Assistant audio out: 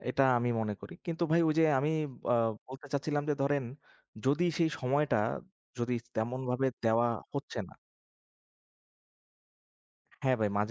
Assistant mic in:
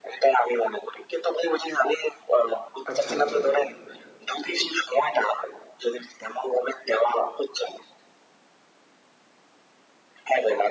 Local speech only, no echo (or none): আচ্ছা, আচ্ছা।